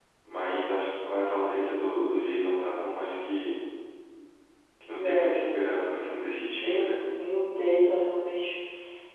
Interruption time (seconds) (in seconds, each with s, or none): 5.0 s